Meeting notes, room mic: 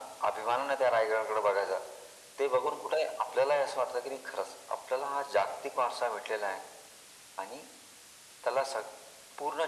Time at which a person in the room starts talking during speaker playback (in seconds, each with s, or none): none